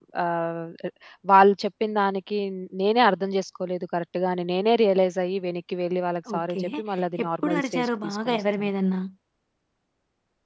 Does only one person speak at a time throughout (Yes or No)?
No